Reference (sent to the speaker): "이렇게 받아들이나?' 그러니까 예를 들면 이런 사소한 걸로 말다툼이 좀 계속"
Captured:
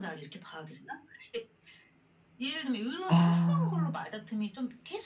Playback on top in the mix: No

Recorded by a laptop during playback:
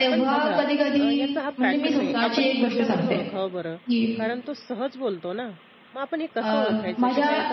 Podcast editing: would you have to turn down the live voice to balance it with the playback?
No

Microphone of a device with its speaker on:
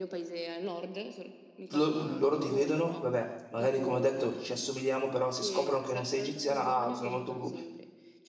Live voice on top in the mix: Yes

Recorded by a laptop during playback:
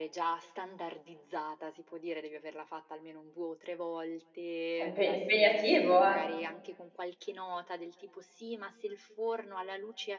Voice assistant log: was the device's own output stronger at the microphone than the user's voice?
No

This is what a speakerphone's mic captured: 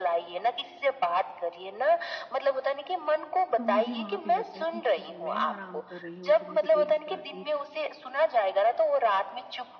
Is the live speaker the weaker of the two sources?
Yes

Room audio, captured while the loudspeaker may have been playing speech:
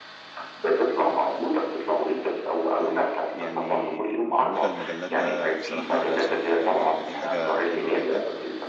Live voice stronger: No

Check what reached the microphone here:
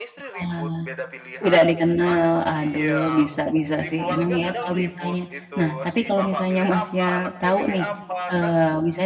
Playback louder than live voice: No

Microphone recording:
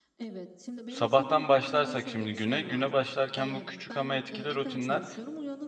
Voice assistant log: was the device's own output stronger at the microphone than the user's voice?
No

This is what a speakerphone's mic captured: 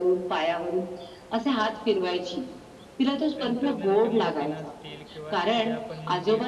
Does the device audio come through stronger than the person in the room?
Yes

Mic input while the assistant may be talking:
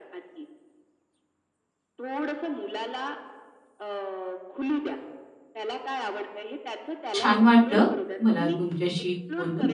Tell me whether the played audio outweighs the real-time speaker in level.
No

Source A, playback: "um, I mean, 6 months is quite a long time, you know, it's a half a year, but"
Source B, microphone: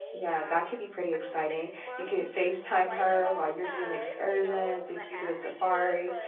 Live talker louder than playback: Yes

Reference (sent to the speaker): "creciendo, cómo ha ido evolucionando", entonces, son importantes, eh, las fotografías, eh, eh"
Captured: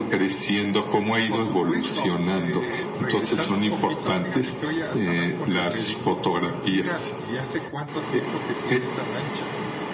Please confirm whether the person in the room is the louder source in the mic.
No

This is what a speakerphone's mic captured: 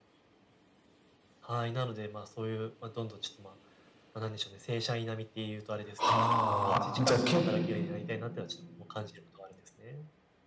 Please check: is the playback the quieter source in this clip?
Yes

